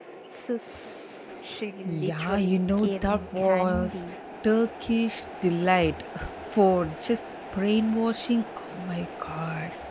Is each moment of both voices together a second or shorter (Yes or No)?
No